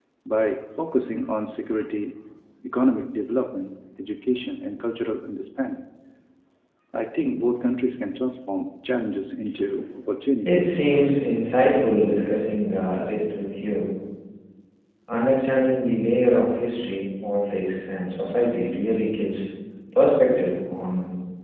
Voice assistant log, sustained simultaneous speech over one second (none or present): none